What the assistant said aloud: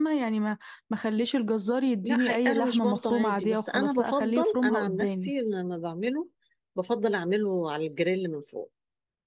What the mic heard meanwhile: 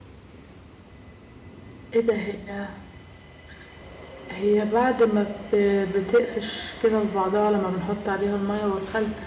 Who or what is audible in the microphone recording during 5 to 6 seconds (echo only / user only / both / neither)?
user only